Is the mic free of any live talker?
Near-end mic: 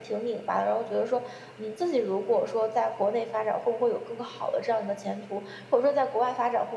Yes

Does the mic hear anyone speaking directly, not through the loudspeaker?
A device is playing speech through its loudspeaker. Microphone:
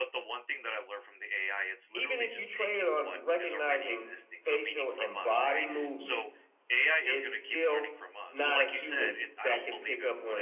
Yes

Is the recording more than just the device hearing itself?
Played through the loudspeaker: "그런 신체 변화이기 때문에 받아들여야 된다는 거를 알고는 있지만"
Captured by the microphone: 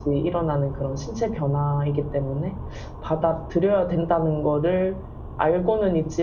No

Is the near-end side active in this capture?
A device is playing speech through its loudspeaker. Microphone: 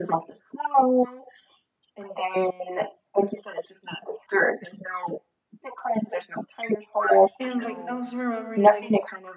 Yes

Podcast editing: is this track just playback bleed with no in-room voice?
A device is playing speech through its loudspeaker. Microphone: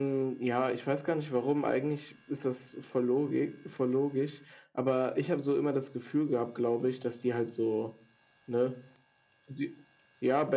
Yes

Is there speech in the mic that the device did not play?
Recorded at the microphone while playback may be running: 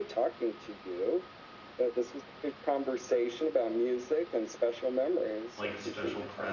Yes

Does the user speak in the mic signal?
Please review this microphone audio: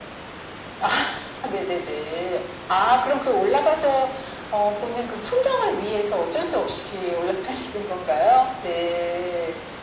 No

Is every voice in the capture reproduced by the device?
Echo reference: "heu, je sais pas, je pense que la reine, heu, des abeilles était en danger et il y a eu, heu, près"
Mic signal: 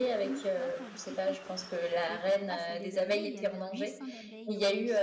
No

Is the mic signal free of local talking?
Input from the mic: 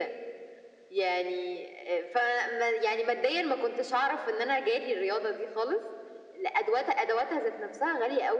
Yes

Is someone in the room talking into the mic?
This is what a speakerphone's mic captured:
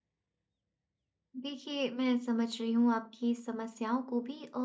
Yes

